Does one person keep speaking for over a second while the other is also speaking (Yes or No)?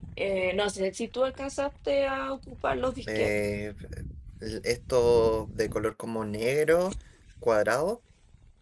No